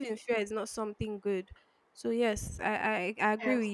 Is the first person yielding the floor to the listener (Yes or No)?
Yes